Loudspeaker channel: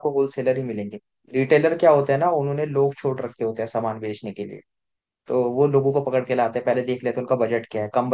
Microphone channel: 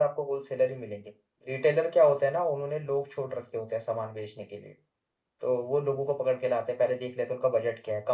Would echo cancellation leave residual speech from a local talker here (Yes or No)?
No